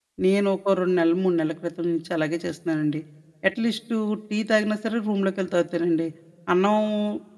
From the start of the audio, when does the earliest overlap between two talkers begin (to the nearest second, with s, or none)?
none